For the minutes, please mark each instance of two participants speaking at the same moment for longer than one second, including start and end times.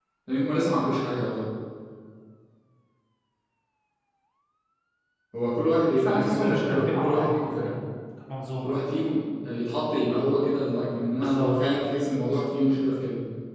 6.0-7.3

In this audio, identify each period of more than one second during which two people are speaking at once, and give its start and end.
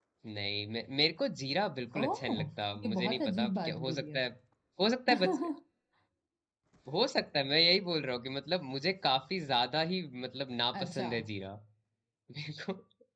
2.8-4.3

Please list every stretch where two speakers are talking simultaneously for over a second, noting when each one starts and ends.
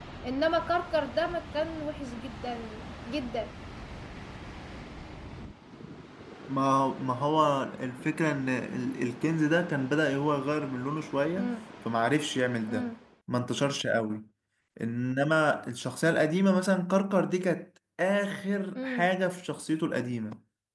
none

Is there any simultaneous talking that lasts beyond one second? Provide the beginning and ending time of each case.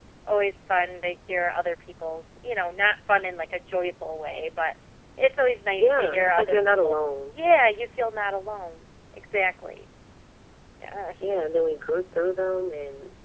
5.8-7.4

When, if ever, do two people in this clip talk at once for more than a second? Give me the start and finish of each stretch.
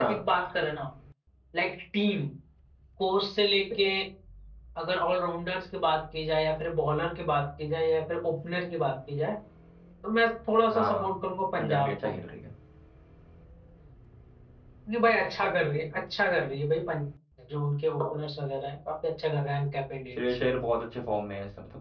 none

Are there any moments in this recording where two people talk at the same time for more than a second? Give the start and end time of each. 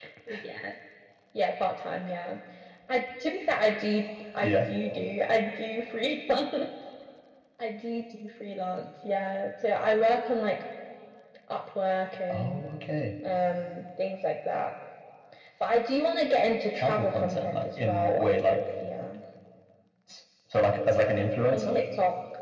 16.7-18.2

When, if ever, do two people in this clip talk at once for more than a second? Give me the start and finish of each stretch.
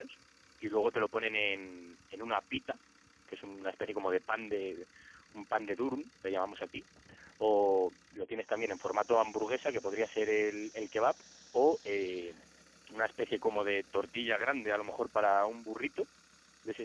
none

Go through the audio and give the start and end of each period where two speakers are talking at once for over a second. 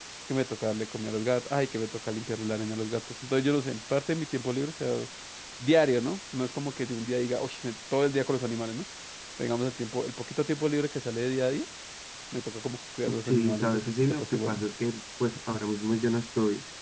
13.2-14.6

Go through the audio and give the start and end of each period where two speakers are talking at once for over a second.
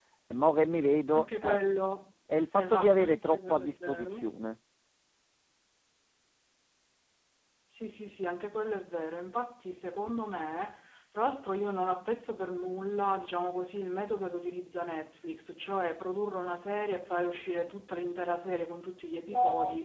2.5-4.3

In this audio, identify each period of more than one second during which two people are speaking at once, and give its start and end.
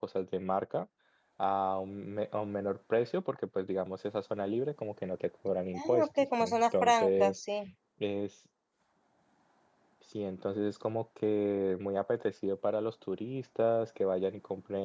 5.7-7.3

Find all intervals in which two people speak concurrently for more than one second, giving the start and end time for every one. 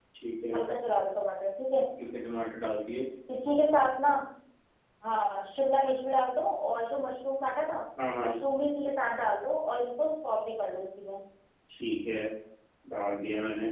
none

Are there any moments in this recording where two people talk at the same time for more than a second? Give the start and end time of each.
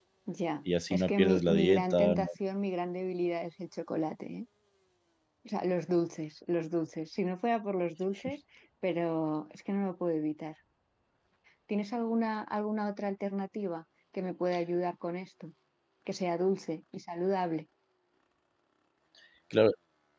0.9-2.2

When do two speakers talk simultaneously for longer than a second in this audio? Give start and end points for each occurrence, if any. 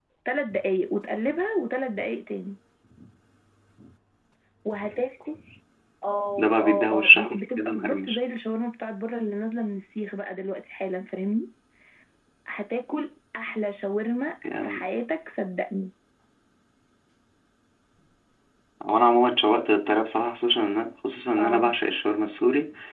6.4-8.2

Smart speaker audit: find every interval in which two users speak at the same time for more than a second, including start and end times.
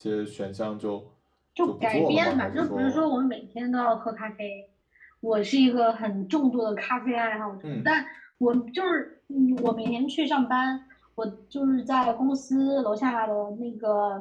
1.7-3.0

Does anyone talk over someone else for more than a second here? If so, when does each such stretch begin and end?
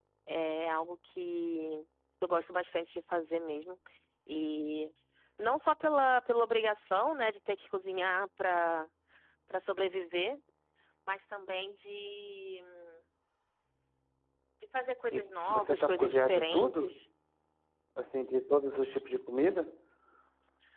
15.1-16.9

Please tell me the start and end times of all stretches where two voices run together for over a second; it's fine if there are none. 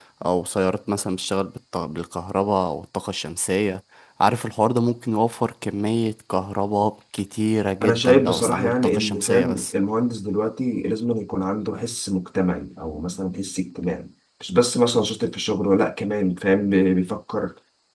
7.8-9.7

